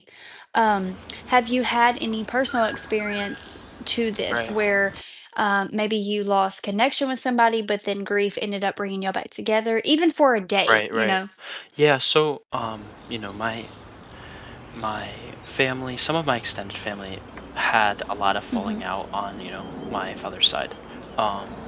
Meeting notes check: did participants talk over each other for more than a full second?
No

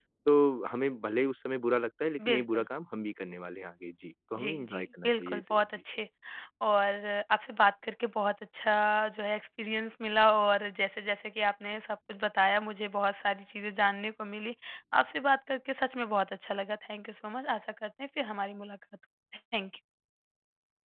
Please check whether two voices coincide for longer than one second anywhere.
Yes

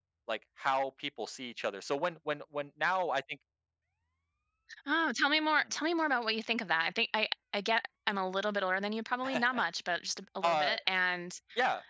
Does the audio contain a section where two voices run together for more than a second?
No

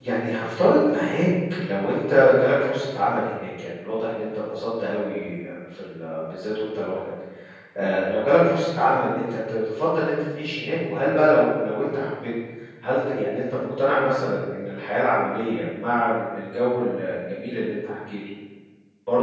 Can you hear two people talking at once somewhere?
No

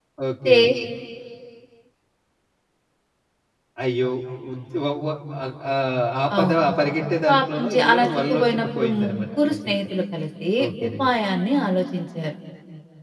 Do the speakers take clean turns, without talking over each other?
No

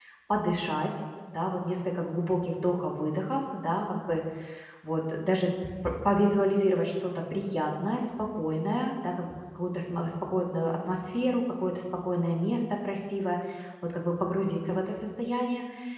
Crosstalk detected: No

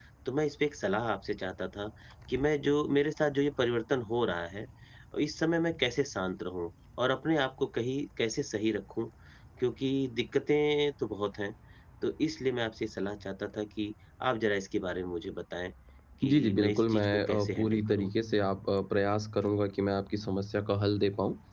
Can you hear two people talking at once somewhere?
Yes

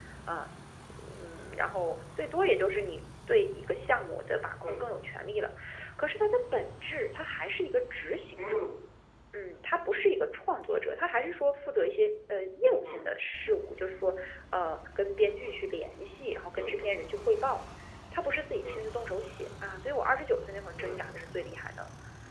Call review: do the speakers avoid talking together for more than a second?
Yes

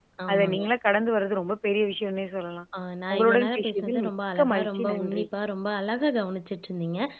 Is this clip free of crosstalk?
No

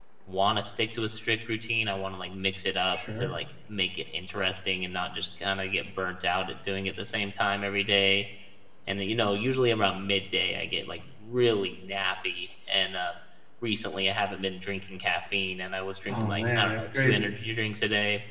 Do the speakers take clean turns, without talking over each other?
No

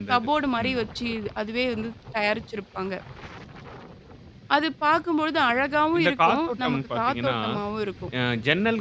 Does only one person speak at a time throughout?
No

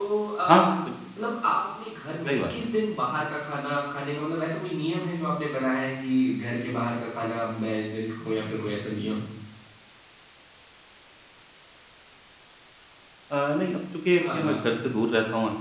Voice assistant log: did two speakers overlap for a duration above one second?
No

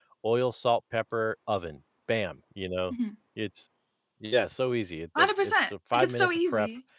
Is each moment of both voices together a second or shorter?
No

